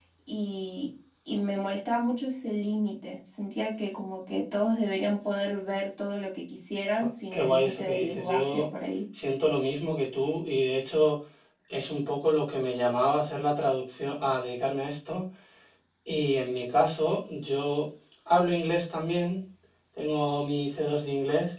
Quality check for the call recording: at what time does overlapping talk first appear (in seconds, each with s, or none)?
6.9 s